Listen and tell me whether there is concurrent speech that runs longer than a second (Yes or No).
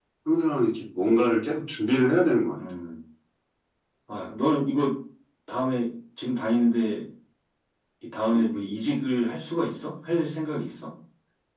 No